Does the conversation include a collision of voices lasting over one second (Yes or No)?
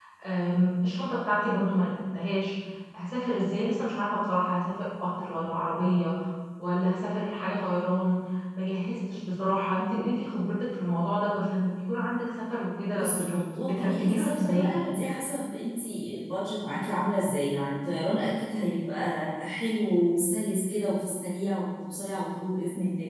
Yes